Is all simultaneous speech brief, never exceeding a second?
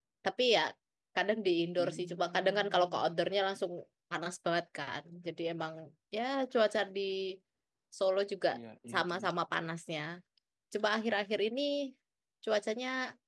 No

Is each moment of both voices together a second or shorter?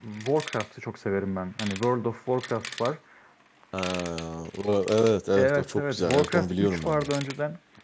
No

